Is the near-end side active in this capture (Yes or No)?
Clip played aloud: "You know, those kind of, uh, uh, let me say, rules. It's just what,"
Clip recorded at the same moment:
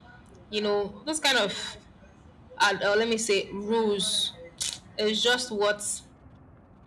No